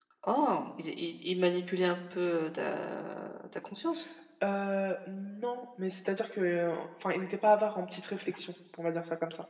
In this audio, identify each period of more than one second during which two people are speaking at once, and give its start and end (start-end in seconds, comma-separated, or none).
none